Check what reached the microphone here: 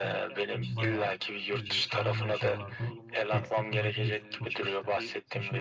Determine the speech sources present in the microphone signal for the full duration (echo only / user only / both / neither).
both